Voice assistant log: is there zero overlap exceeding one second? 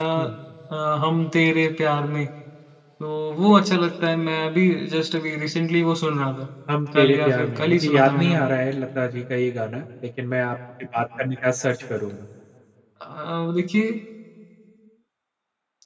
No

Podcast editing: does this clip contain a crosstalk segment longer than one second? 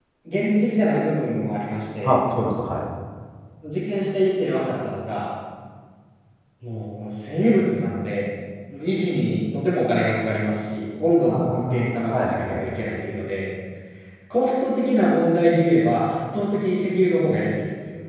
Yes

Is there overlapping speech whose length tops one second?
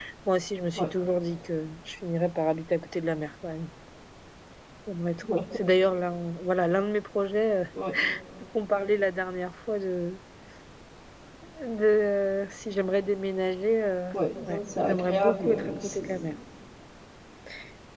Yes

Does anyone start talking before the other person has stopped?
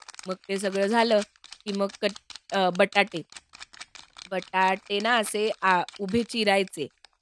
No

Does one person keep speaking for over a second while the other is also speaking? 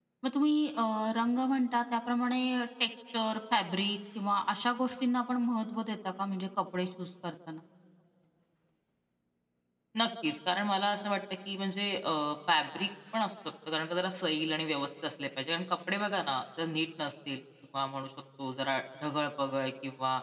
No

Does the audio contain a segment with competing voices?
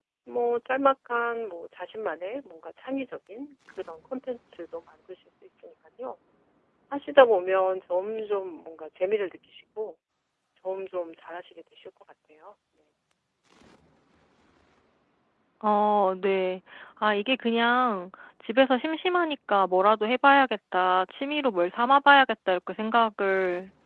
No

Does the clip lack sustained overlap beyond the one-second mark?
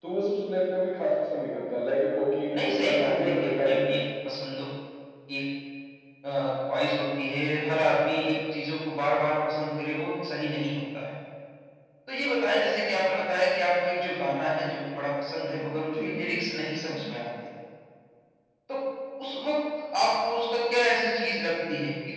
No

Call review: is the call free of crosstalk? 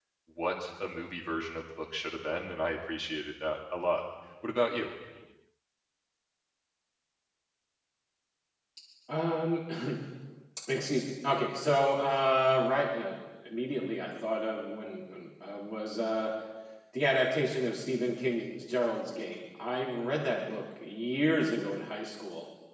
Yes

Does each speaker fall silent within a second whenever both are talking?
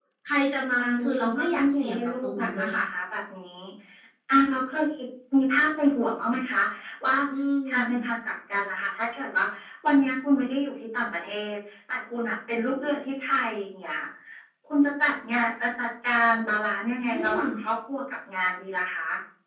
No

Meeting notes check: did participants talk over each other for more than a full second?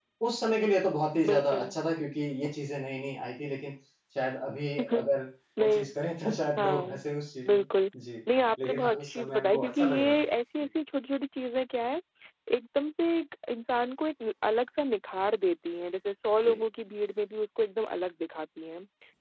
Yes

